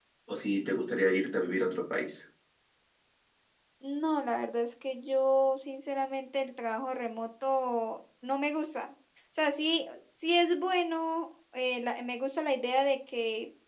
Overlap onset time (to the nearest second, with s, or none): none